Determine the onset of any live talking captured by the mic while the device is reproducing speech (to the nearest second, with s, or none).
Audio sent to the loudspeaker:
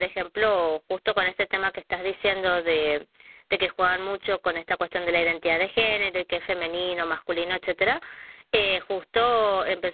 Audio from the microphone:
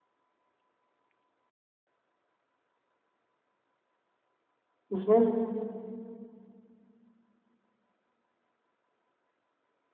5 s